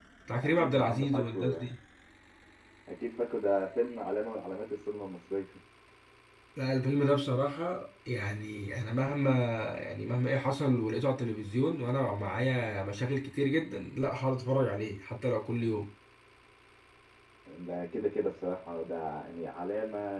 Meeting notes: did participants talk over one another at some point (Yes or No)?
Yes